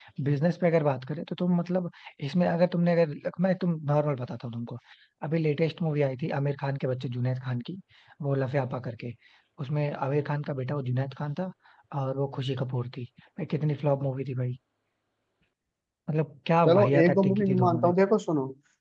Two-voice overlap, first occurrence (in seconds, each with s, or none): 16.6 s